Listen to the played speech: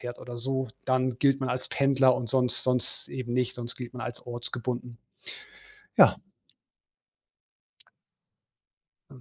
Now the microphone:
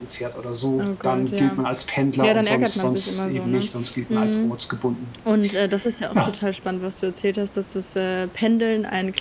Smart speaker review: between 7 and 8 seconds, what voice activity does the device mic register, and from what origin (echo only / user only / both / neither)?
user only